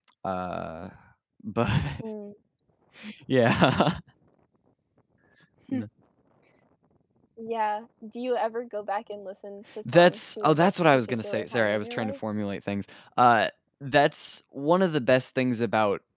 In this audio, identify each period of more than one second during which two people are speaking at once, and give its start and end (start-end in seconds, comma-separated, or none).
9.9-12.1